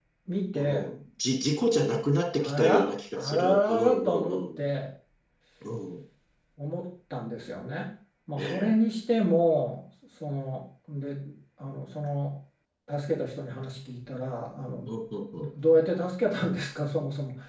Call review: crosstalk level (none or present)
present